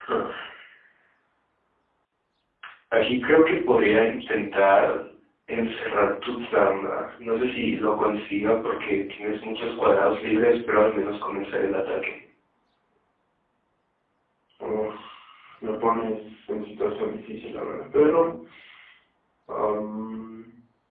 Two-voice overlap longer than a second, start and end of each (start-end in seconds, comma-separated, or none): none